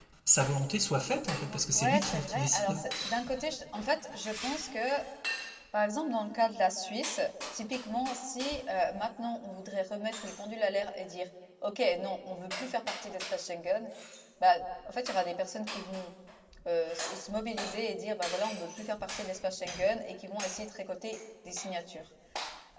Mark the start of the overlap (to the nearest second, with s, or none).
1 s